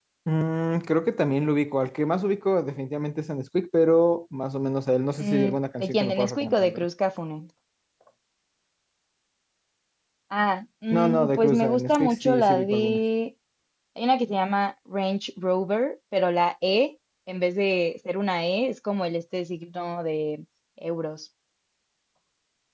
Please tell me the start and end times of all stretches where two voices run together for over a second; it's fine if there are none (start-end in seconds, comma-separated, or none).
5.2-6.8, 10.9-13.0